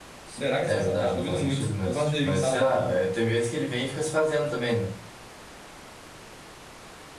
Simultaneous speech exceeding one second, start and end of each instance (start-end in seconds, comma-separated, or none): 0.7-3.0